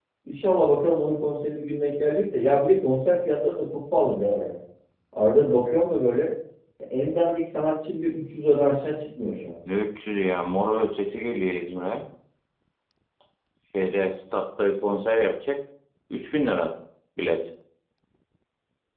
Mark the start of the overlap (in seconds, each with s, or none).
none